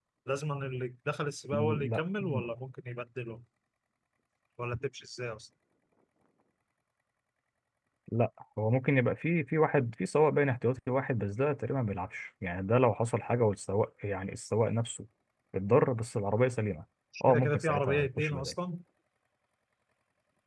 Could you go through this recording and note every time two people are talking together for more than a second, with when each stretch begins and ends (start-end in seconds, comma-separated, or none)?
17.3-18.5